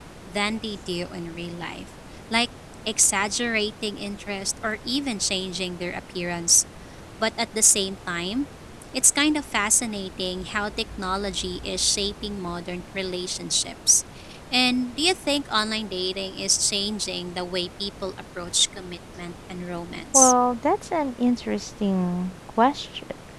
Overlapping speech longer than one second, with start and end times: none

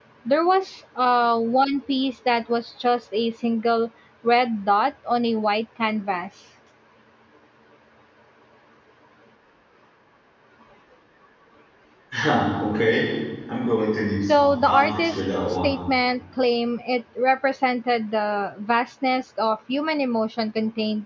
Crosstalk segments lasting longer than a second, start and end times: 14.3-15.8

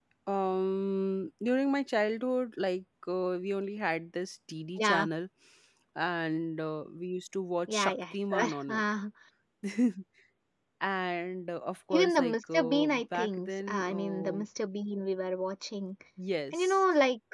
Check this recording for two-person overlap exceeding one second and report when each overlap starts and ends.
7.7-8.9, 11.9-14.4

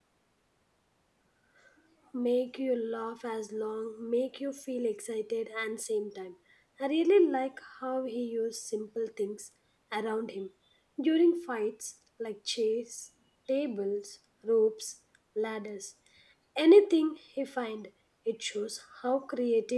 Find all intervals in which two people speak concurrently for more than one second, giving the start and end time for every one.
none

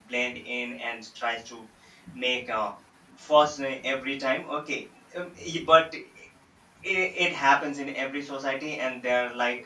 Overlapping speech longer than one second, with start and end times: none

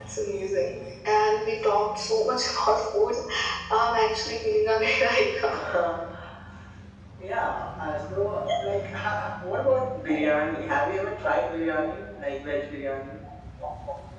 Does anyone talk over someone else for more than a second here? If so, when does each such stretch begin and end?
none

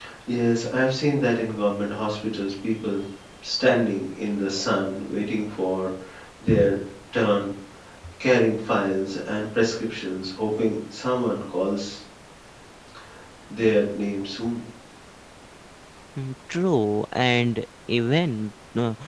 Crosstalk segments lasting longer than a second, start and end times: none

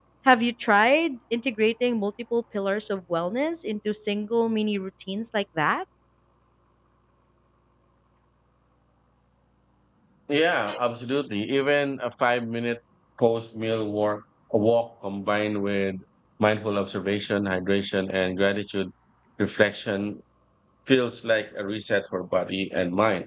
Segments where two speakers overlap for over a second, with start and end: none

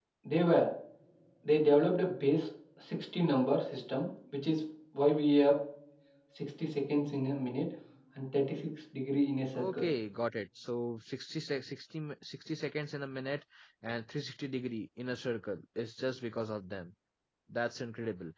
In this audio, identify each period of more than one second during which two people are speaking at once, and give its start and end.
none

